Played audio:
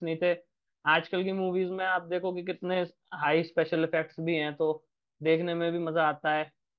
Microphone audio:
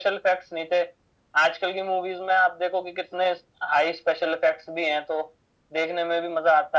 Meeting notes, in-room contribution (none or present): none